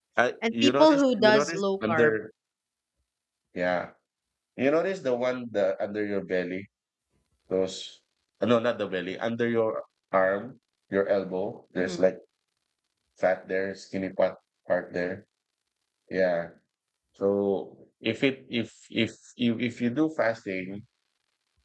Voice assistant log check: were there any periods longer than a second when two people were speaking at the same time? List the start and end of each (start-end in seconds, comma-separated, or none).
0.5-2.1